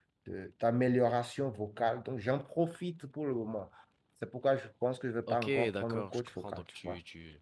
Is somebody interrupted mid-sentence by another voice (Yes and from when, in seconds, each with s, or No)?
Yes, from 5.3 s